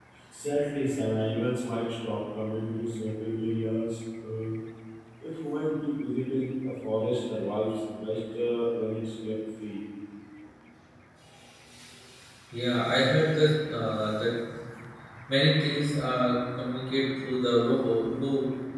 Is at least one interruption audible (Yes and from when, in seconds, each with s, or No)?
No